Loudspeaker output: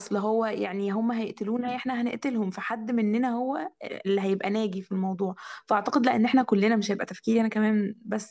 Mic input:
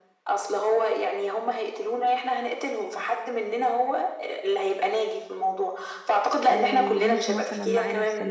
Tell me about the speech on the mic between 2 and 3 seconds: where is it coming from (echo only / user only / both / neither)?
echo only